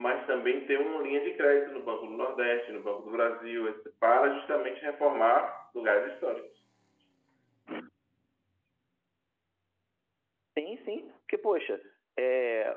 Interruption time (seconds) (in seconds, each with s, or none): none